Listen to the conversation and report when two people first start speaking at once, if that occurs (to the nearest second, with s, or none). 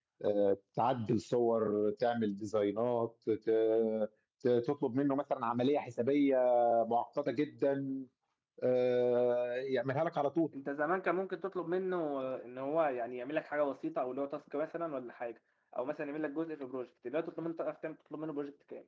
none